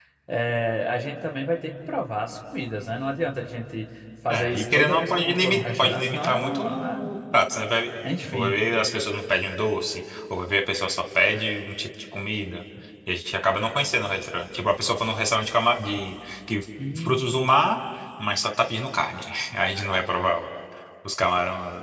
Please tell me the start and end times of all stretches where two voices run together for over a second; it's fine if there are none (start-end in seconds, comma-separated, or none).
4.3-7.1